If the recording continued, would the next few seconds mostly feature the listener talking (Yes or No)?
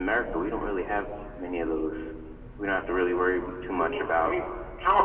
Yes